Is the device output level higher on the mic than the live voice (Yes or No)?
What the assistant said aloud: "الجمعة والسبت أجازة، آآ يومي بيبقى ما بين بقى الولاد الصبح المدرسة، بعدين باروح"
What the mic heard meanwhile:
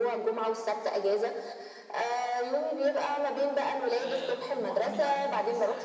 Yes